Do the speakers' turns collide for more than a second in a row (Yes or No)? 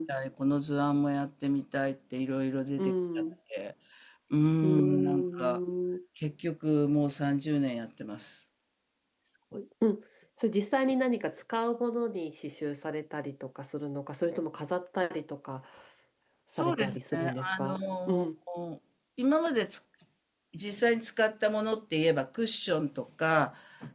Yes